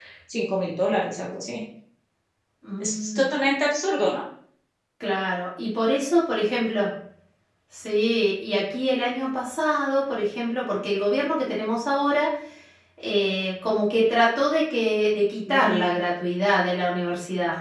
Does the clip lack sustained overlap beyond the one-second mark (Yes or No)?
Yes